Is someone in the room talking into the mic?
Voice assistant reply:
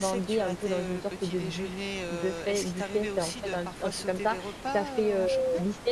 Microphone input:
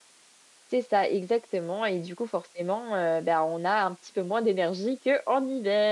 Yes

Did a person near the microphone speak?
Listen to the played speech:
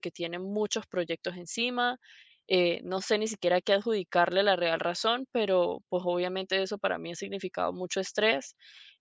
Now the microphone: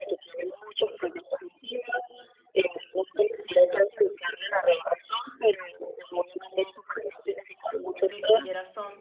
Yes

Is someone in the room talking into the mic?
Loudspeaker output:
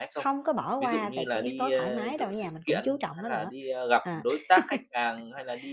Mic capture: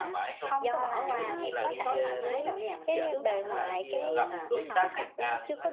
Yes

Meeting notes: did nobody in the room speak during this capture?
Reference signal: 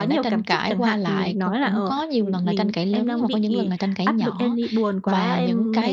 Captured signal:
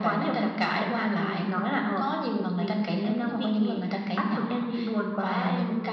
Yes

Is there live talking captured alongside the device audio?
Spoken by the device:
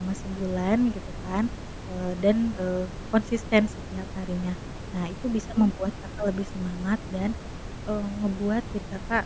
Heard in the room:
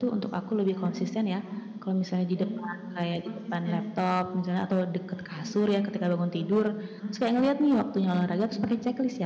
Yes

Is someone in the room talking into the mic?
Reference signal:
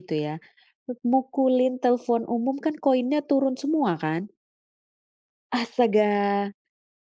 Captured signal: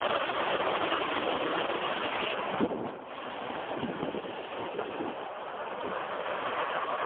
No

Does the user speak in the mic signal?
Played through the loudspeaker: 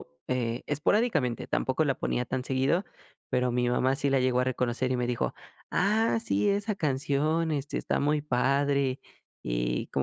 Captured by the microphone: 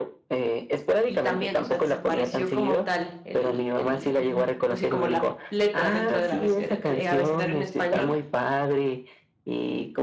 Yes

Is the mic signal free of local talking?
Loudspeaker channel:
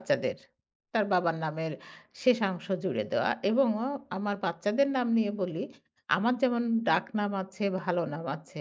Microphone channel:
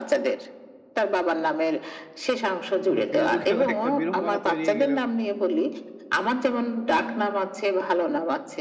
No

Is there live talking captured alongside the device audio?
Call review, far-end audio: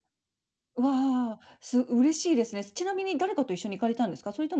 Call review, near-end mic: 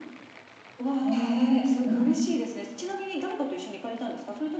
Yes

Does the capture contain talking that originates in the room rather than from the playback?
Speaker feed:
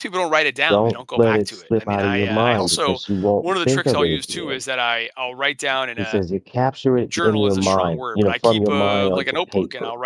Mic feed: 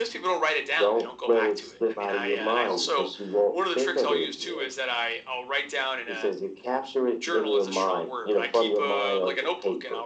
No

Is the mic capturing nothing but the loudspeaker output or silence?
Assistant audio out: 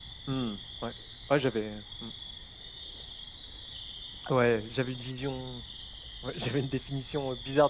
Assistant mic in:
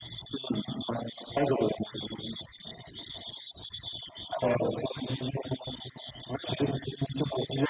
Yes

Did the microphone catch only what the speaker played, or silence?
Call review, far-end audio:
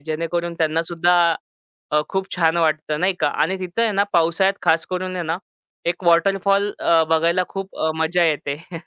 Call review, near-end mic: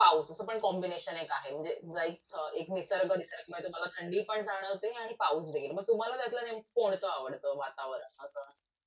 No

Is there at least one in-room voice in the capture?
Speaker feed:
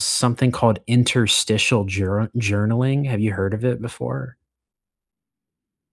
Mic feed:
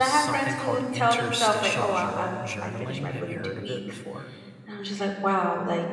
Yes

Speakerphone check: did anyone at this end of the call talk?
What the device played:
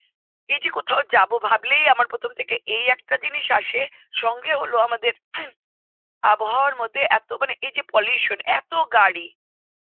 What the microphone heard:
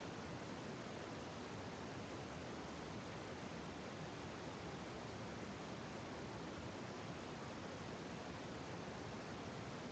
No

